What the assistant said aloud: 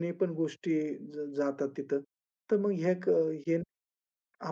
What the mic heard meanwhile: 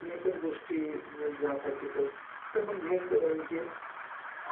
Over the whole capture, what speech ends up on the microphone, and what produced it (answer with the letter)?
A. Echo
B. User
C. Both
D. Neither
A